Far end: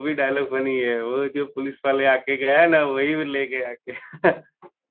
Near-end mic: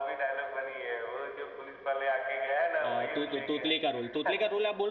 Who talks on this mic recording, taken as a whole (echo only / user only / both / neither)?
both